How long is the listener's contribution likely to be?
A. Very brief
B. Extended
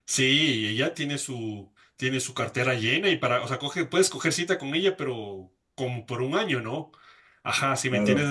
A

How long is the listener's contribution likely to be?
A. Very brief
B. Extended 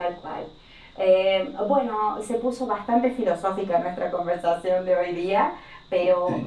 A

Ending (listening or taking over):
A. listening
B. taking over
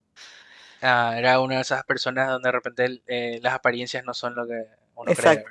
B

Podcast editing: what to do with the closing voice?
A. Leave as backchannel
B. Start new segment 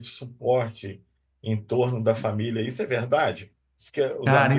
A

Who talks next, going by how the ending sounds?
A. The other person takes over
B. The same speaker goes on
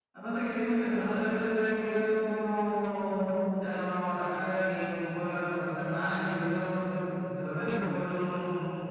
B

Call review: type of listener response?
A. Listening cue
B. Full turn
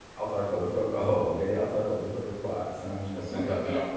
B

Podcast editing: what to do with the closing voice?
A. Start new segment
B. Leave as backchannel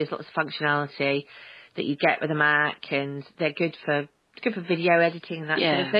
B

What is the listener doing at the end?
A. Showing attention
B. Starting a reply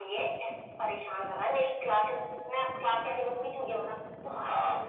B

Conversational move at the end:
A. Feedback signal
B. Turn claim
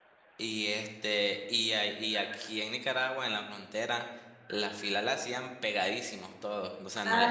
A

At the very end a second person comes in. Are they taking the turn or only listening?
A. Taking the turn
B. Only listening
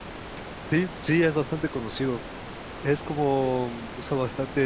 B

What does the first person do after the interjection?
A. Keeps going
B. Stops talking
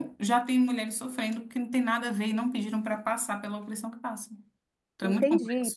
B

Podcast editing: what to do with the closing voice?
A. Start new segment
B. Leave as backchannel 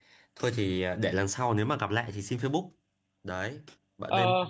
B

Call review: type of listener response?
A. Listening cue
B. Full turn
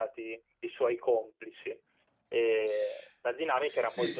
B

